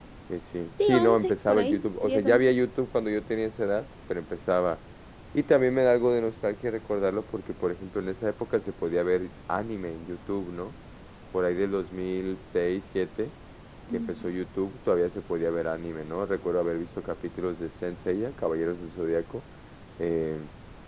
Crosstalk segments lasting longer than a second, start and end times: 0.8-2.5

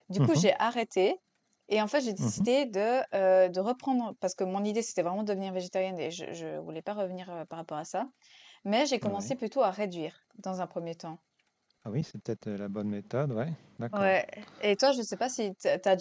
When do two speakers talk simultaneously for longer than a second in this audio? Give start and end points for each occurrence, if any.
none

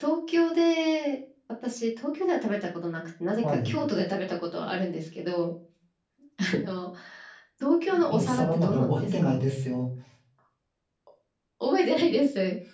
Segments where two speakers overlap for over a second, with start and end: 8.1-9.4

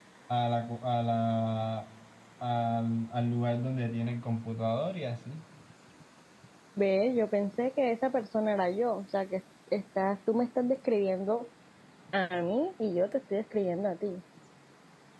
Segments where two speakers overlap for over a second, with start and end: none

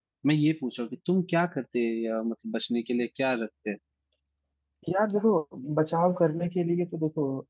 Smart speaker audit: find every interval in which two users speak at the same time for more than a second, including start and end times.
none

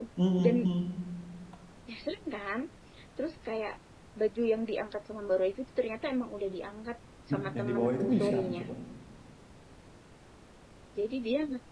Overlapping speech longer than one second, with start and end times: 7.3-8.6

